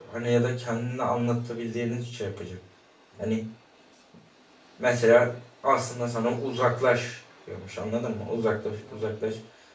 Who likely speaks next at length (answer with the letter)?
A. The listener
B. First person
B